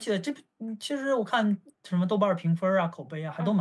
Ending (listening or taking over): taking over